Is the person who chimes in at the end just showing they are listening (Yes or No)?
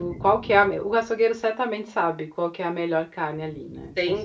No